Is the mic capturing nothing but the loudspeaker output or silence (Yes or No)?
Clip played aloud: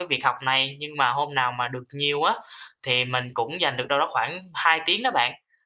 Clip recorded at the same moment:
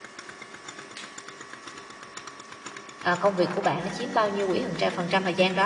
No